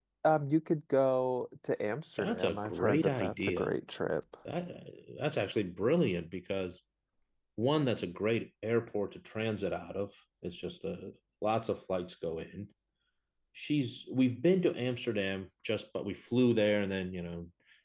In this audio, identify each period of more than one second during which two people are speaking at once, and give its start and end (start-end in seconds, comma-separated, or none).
2.2-3.7